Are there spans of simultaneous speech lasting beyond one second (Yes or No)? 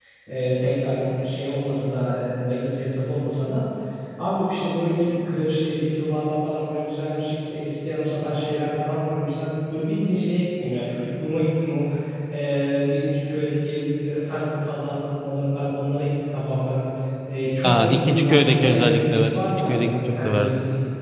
Yes